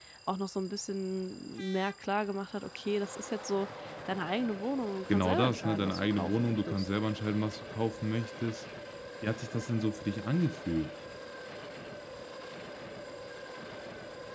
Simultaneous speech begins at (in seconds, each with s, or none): 5.1 s